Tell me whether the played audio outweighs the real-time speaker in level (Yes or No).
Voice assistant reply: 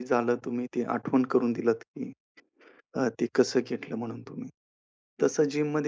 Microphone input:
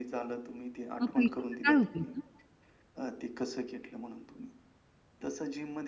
No